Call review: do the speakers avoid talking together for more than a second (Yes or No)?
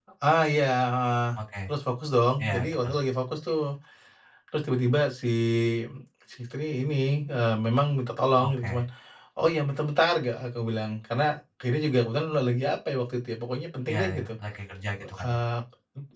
Yes